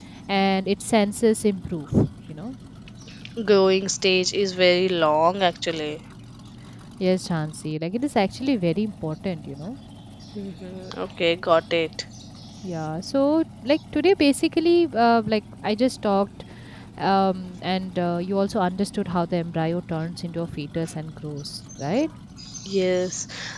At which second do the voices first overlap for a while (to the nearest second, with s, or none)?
none